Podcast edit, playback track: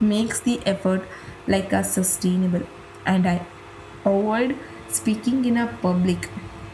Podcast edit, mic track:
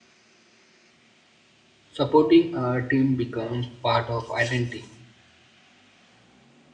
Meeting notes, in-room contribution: present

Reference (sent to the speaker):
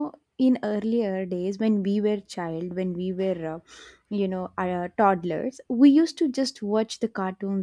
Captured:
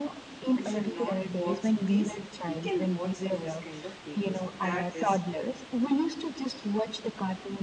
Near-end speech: present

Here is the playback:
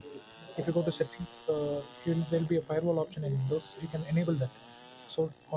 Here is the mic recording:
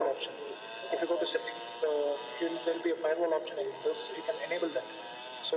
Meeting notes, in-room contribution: none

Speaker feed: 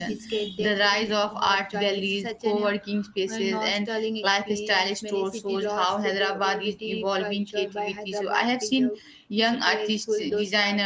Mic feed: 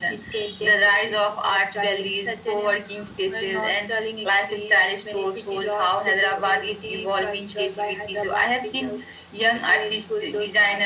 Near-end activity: none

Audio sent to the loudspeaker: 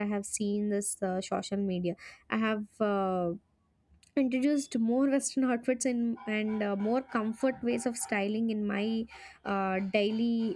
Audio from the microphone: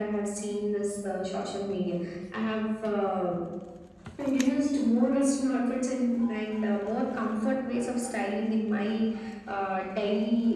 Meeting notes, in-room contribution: none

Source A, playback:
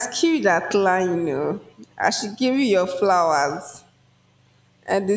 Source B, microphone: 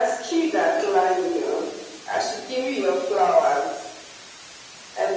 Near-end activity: none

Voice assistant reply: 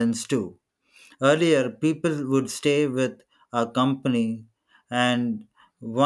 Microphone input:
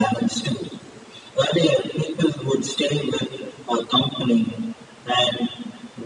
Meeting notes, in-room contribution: none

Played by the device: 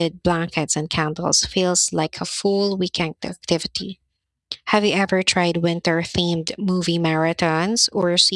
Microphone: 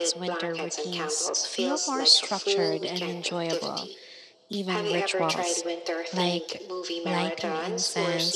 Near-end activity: present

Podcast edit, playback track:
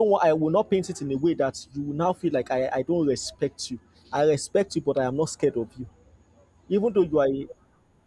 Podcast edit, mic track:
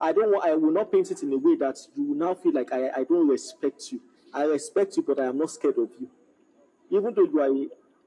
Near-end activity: none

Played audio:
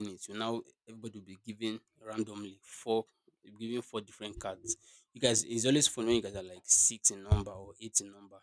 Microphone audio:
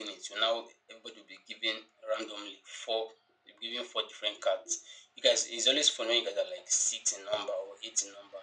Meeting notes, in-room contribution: none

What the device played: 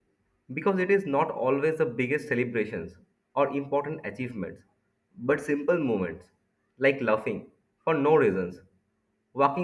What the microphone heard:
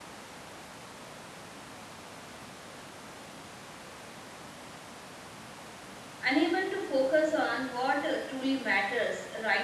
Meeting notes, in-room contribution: present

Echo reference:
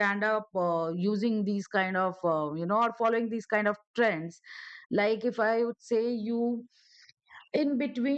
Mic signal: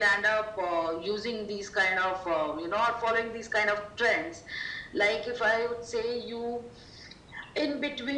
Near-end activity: none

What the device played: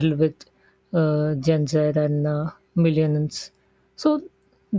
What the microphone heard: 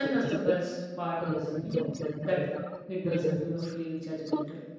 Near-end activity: present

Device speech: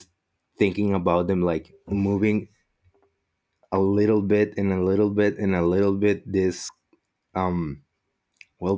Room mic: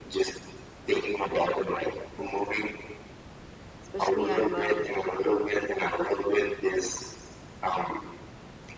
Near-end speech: present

